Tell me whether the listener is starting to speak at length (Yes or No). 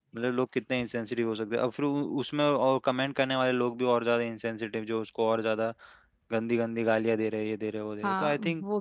Yes